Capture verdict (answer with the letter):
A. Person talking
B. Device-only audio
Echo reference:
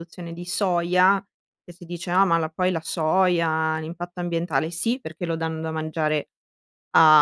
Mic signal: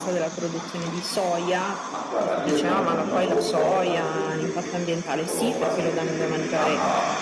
A